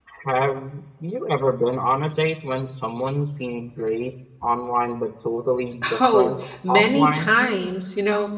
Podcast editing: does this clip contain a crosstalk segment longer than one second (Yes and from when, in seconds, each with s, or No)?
Yes, from 5.8 s